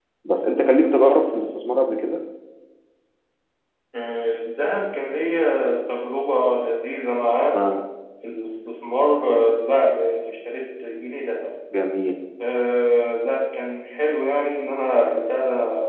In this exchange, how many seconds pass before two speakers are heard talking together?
none

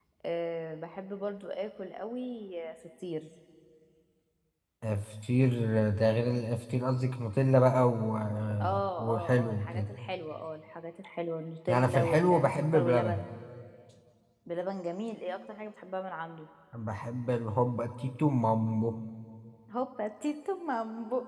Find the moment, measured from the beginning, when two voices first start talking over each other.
8.6 s

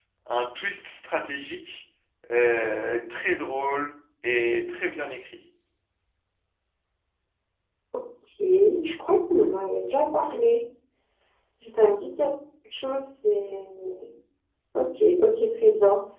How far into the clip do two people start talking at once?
none

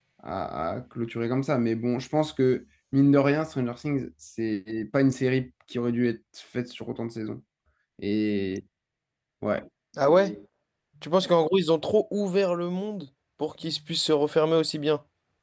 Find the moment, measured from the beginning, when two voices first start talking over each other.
none

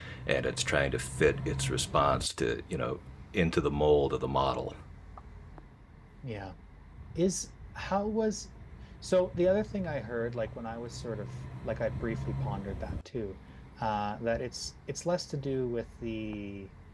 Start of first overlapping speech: none

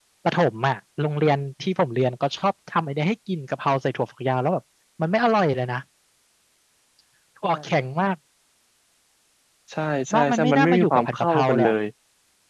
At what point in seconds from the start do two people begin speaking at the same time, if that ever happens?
10.1 s

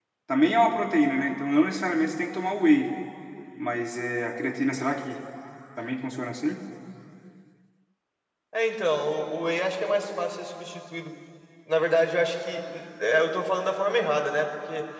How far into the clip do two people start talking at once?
none

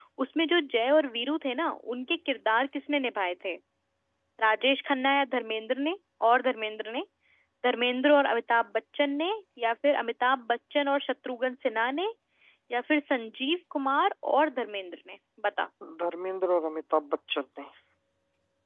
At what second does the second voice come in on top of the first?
none

